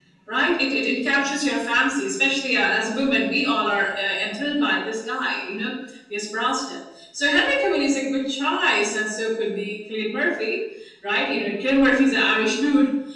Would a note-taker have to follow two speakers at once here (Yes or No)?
No